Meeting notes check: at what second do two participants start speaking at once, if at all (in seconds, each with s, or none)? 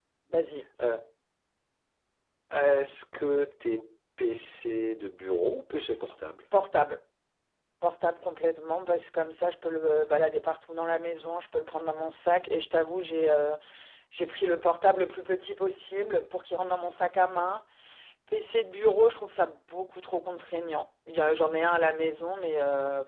none